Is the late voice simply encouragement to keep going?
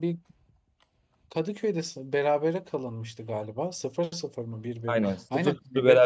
No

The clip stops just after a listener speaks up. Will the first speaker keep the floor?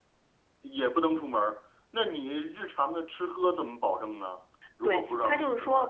No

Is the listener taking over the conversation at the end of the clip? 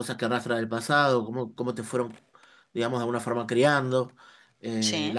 No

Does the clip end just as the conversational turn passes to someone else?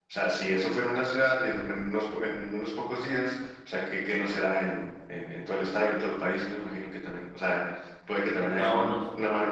No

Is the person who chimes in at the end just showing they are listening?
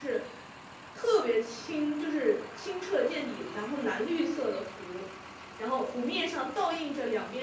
Yes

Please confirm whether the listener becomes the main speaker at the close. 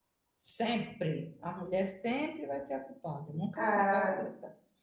No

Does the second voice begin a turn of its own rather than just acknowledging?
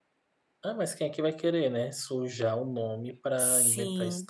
Yes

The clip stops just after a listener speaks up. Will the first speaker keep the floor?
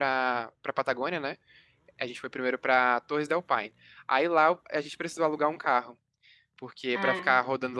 Yes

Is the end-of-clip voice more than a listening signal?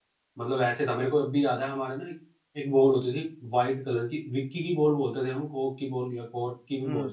Yes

